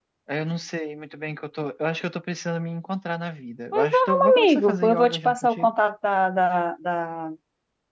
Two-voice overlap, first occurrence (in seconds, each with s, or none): 3.7 s